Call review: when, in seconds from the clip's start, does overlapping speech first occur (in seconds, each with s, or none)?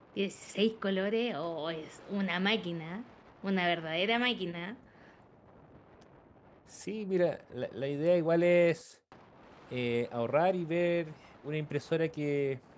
none